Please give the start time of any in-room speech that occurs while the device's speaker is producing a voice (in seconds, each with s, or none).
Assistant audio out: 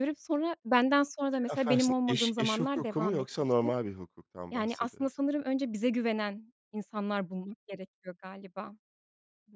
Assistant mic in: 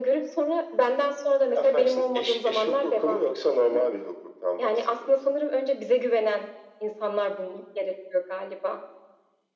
none